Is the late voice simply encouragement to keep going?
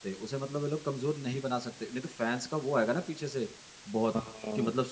Yes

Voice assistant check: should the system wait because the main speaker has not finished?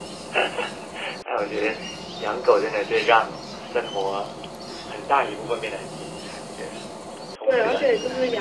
No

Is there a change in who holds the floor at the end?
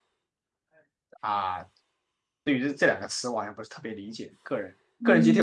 Yes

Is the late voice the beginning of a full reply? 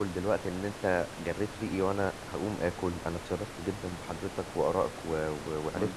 No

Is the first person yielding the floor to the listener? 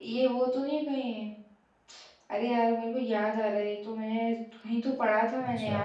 Yes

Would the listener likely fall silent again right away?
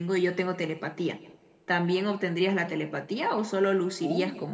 No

